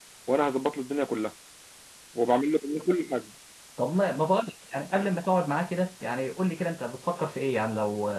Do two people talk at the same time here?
No

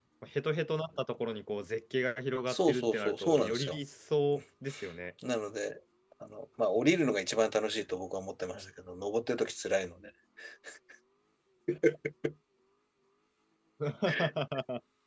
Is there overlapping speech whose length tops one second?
Yes, from 2.5 s

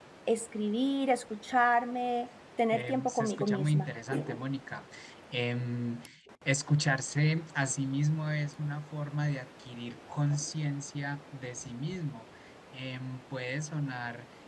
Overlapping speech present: Yes, from 2.7 s

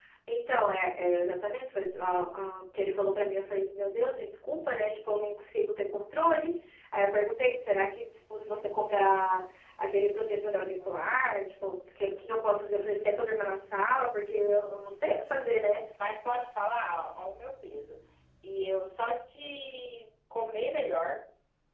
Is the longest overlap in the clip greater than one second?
No

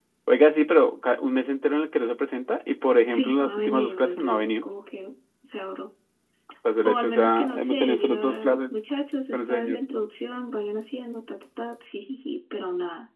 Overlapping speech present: Yes, from 3.1 s

